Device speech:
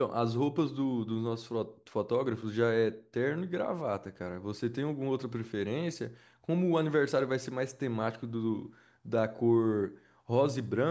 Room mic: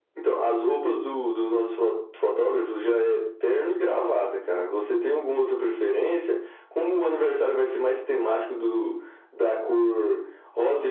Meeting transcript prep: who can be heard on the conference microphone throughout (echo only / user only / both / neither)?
echo only